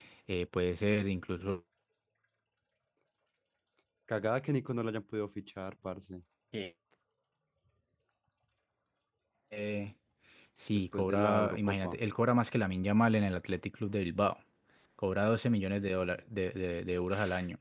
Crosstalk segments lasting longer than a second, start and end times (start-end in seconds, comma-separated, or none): 10.7-12.0